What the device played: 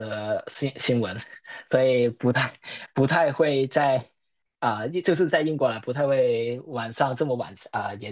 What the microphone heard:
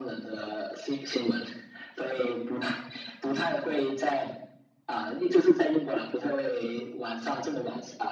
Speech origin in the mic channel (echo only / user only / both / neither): echo only